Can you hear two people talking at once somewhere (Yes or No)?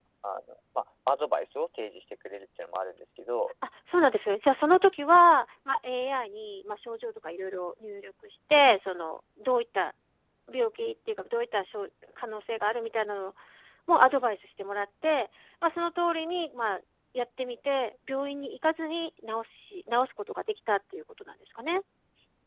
No